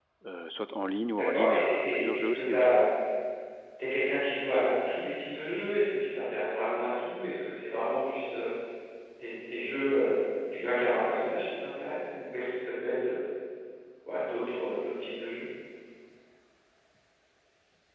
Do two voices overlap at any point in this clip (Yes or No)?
Yes